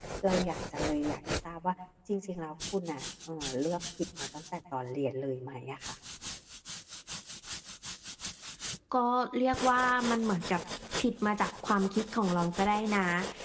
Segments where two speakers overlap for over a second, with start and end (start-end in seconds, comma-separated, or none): none